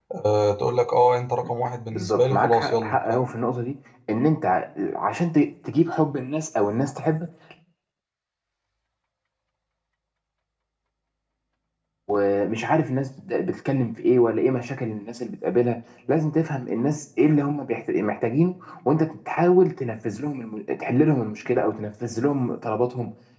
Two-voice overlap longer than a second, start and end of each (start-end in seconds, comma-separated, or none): 1.9-3.3